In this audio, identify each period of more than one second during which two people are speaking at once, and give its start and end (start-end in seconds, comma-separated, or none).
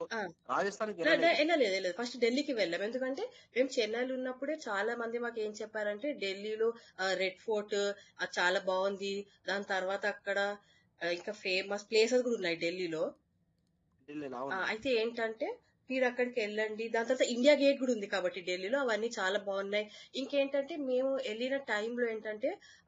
none